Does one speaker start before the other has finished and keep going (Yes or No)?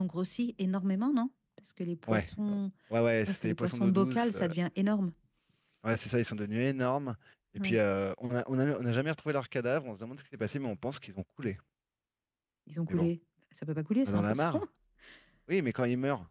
Yes